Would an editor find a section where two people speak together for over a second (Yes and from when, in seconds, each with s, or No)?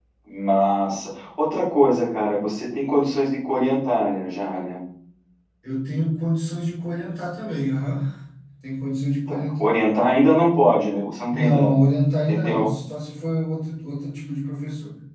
No